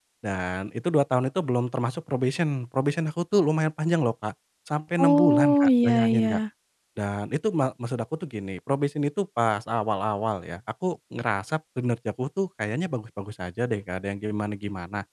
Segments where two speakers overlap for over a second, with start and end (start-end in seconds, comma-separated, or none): 5.0-6.4